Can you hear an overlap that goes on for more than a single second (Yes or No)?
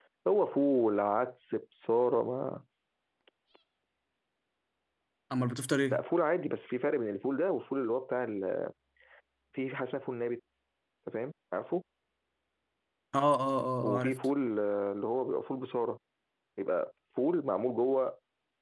No